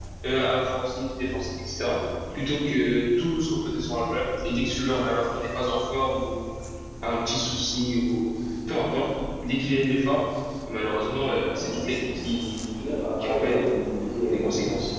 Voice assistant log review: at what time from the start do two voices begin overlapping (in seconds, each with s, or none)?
11.4 s